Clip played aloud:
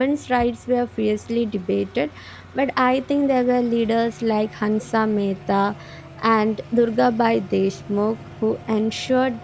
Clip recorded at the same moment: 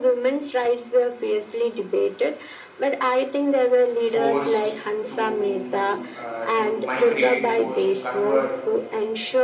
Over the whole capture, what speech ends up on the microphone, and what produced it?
both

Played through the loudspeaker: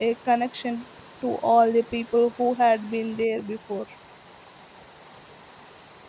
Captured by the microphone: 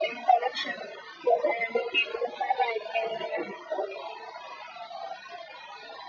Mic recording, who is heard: echo only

